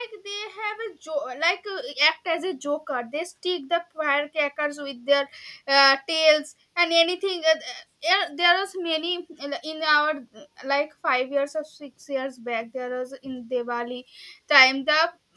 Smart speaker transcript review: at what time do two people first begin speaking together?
none

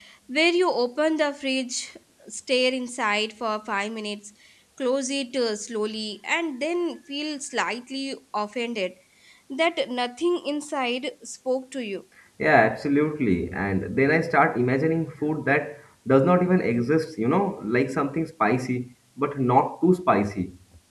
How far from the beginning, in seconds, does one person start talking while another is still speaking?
none

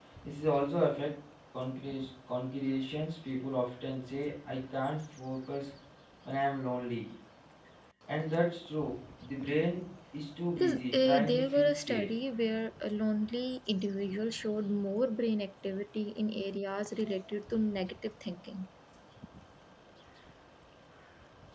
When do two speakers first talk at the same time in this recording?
10.5 s

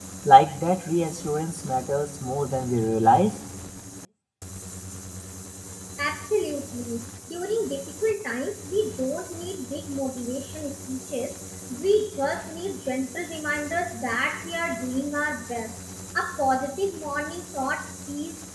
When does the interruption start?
none

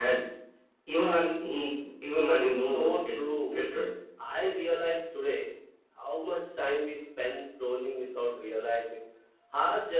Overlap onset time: 2.2 s

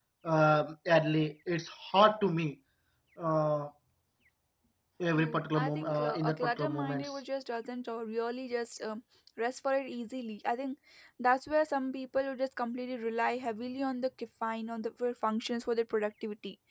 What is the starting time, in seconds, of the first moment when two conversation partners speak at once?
5.2 s

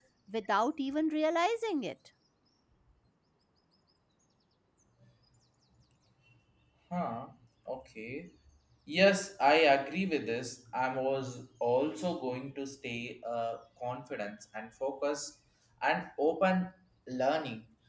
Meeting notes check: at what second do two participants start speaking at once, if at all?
none

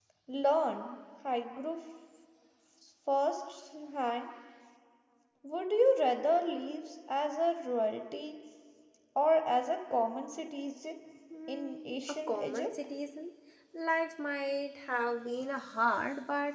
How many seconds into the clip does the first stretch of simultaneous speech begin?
11.5 s

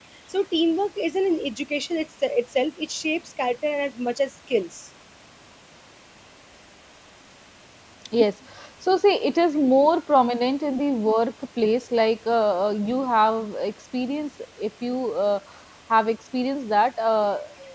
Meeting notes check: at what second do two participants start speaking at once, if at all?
none

